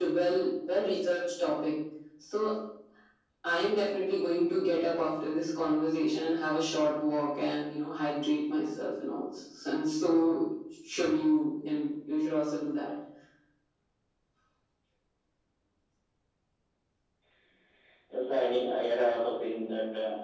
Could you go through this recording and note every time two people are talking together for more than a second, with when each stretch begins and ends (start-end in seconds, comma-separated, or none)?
none